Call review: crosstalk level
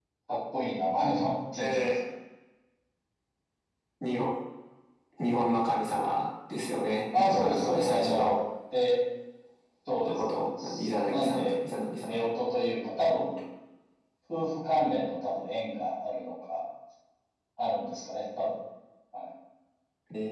present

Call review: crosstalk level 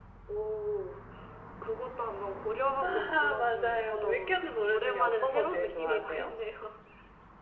present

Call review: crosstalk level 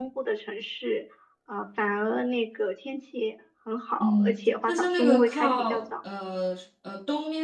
present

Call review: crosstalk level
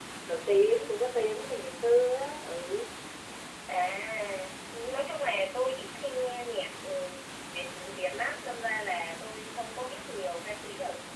none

